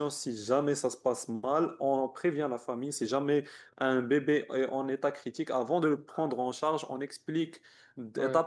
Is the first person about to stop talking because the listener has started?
No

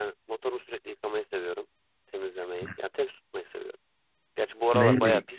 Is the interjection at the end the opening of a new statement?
Yes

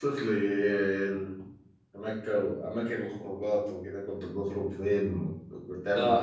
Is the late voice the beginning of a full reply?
Yes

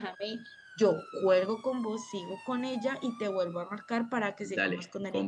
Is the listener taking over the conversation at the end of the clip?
Yes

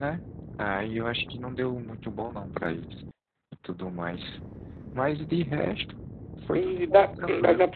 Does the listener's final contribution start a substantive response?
Yes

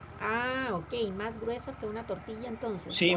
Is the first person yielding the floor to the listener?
Yes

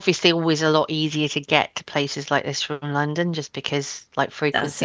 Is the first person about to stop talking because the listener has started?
No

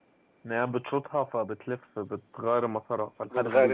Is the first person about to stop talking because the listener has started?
Yes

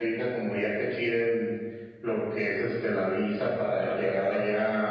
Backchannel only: Yes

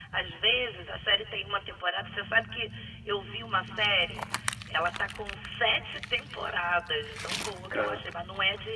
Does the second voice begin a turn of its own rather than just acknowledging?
No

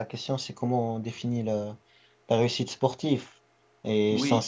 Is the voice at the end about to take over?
No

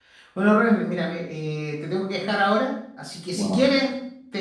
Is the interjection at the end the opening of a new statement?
No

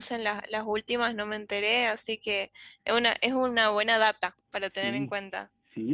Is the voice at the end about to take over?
Yes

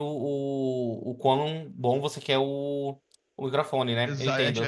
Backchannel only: No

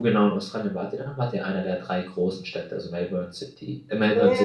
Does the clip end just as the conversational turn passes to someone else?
Yes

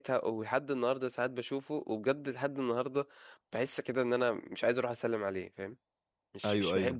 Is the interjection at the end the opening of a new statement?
Yes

